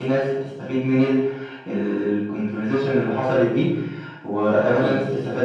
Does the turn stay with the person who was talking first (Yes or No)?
Yes